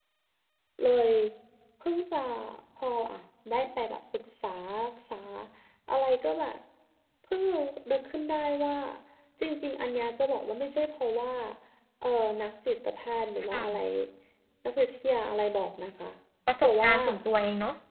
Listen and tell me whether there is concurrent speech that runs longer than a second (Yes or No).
No